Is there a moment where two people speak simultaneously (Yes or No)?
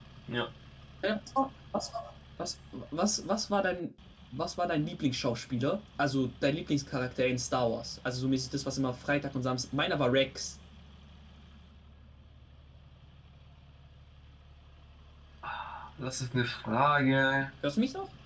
No